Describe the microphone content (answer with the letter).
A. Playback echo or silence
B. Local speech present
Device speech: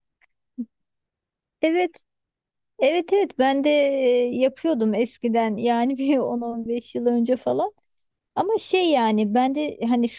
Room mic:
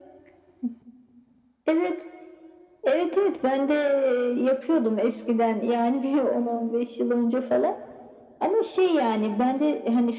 A